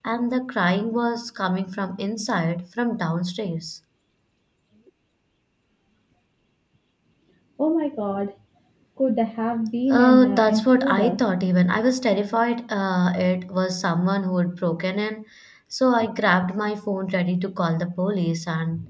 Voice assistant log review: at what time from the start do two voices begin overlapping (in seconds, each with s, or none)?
9.9 s